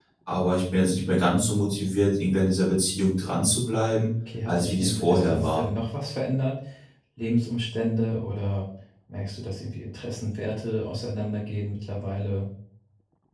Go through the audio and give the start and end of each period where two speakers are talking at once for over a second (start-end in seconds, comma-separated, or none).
4.4-5.7